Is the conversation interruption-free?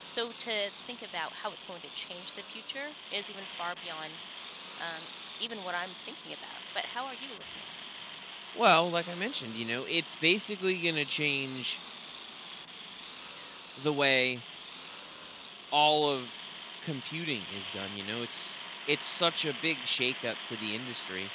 Yes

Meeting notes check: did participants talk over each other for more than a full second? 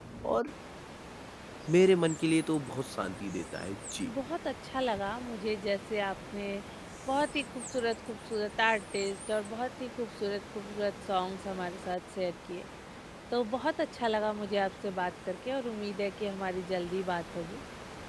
No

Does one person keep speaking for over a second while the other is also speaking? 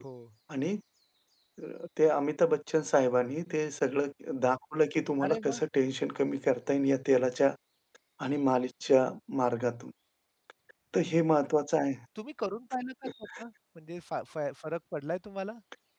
No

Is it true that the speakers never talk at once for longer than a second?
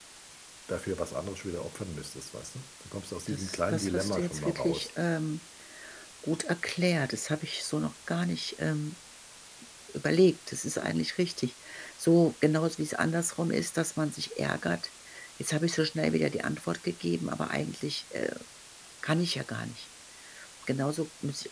No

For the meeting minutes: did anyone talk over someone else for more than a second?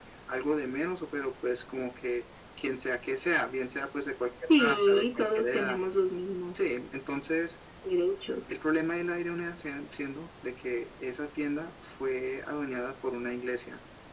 Yes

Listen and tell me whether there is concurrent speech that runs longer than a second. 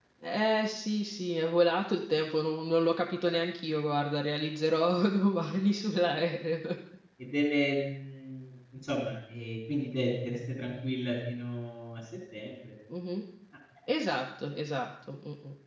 No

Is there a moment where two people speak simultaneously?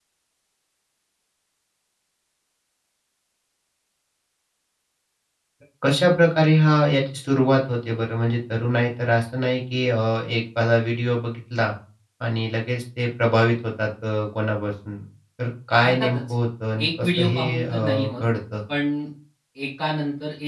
Yes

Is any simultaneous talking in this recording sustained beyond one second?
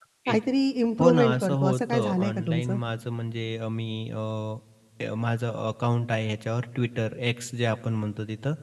Yes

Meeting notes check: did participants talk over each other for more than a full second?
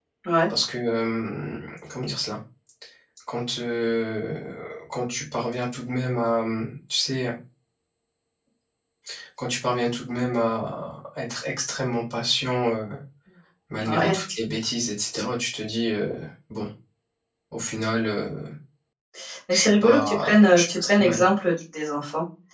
Yes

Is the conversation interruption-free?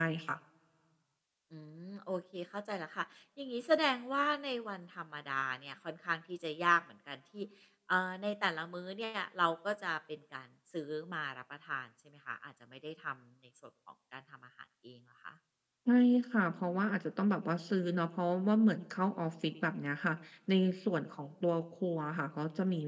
Yes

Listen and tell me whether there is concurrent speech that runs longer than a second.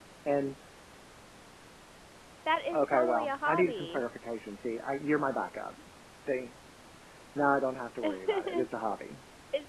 Yes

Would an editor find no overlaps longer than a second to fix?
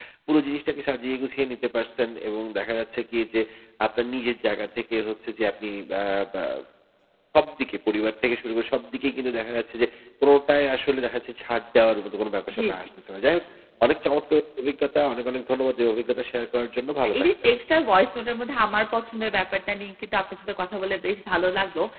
Yes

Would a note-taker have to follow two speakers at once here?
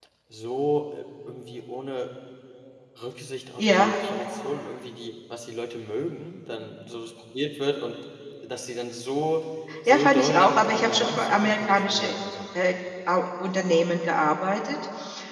Yes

